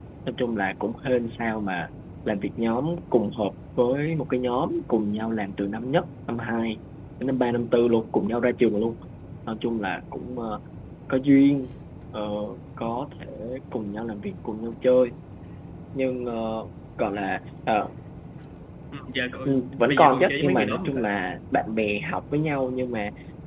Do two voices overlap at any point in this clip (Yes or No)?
Yes